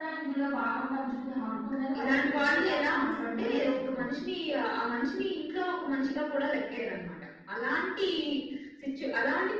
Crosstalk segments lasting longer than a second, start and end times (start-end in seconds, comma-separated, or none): 2.0-4.1